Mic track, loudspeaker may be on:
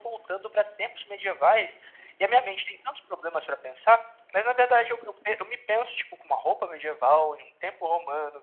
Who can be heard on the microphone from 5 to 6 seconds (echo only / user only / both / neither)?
echo only